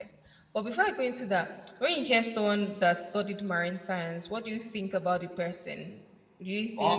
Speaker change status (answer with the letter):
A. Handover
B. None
B